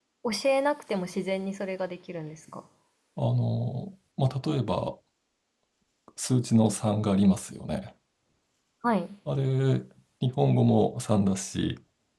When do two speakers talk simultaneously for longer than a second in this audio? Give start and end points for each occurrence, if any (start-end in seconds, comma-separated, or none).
none